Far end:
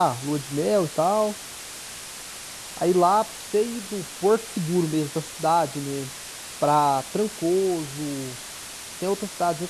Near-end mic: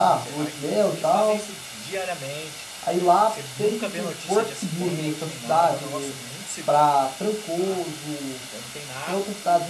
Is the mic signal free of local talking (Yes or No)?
No